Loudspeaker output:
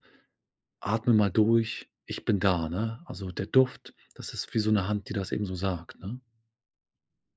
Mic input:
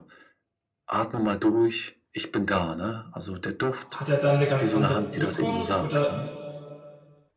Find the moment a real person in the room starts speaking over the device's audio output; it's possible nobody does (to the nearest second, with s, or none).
4 s